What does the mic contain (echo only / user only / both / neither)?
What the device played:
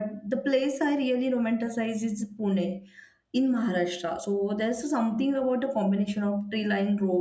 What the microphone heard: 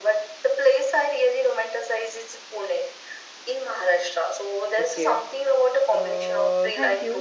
both